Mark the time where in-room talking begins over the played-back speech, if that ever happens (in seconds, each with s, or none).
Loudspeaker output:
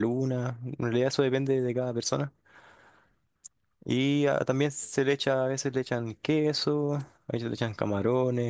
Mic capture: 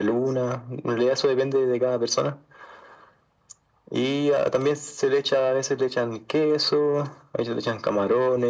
none